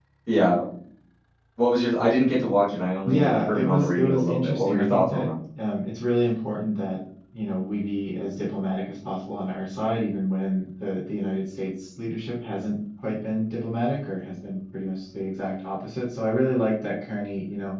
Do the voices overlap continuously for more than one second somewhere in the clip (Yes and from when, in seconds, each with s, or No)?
Yes, from 3.0 s